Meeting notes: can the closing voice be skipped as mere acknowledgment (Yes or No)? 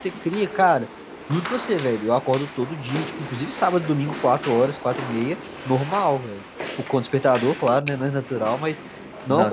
Yes